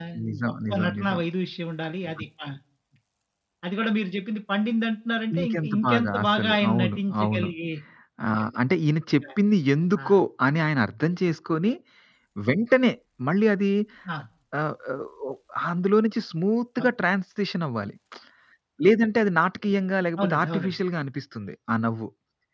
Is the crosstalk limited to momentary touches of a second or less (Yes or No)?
No